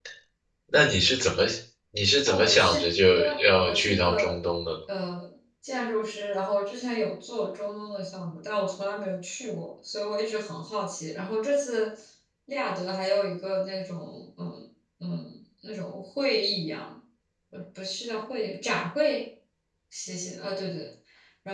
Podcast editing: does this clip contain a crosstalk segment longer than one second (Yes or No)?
Yes